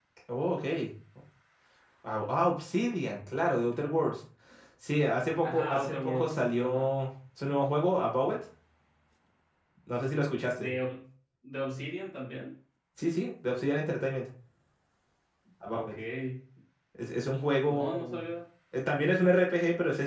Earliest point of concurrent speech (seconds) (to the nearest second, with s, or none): 5 s